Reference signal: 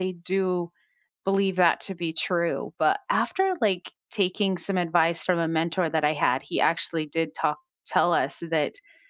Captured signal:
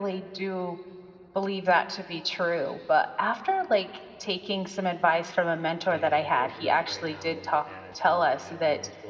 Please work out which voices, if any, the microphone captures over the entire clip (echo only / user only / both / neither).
both